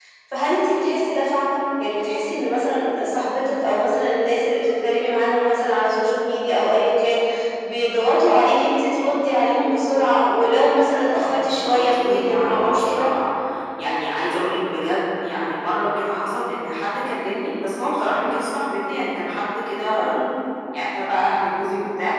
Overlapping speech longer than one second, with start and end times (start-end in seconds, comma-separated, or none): 11.1-13.1